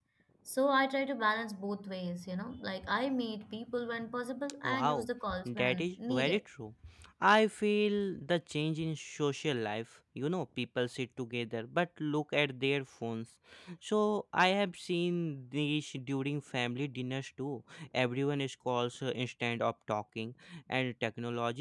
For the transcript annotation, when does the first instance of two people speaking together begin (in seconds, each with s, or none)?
4.6 s